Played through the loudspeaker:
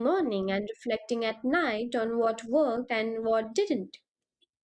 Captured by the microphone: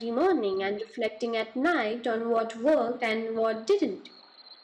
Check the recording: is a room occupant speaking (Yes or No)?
No